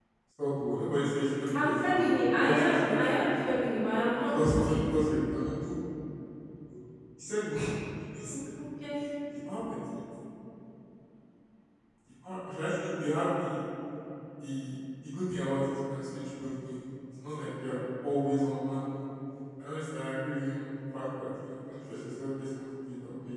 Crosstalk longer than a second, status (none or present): present